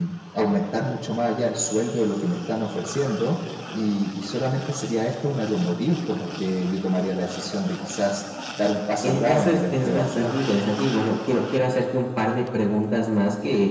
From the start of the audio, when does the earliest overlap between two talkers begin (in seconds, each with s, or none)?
9.0 s